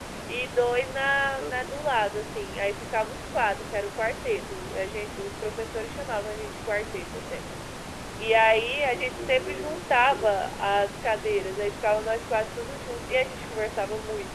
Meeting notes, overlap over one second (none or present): present